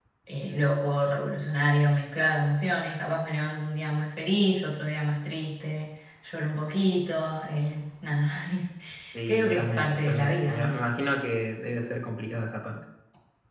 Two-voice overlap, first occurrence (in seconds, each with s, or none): 9.3 s